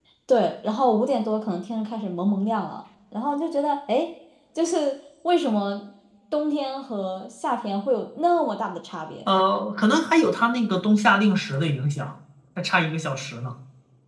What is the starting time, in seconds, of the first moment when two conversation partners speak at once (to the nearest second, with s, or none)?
none